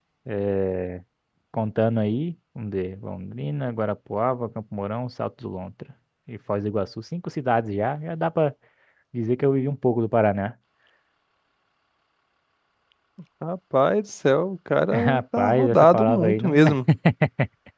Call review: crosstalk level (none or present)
present